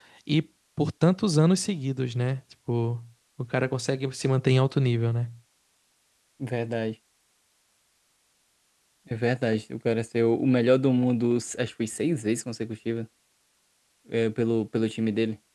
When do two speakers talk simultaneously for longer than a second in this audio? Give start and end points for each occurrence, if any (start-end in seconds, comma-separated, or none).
none